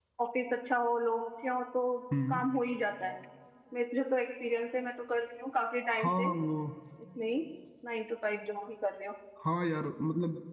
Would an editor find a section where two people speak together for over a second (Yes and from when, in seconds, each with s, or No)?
No